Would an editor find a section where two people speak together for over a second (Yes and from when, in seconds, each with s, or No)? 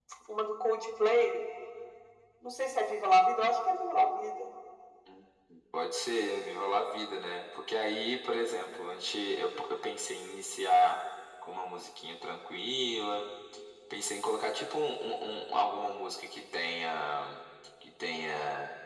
No